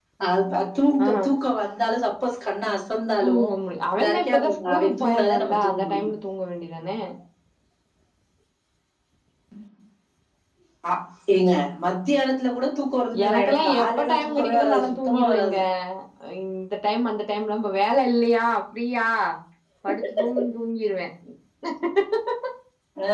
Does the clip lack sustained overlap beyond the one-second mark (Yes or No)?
No